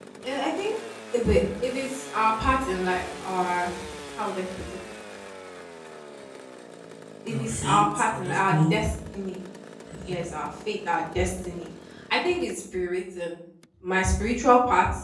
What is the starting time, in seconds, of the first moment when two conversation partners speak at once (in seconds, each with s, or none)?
7.3 s